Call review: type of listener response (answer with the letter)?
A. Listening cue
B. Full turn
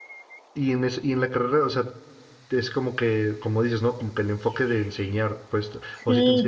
B